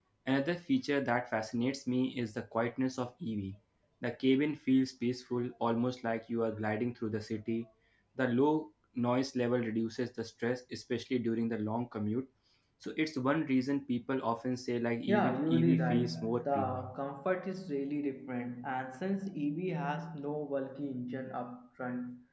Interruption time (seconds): 15.1 s

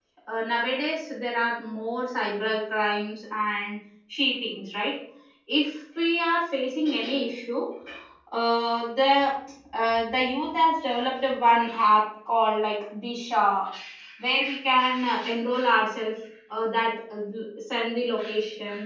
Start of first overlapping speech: none

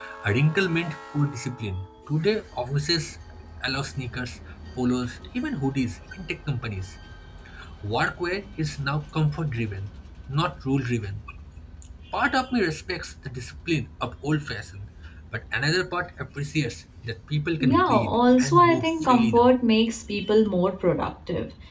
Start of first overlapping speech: 17.6 s

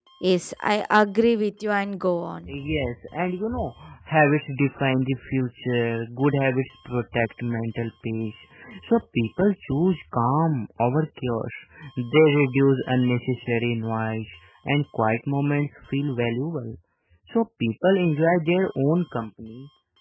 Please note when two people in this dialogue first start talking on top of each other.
none

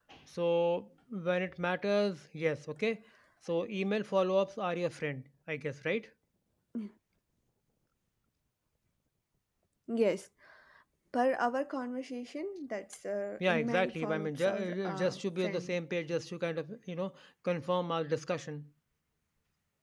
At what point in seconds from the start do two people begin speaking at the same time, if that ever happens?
13.4 s

